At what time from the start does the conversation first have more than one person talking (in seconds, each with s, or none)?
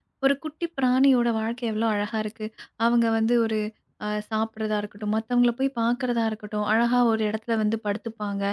none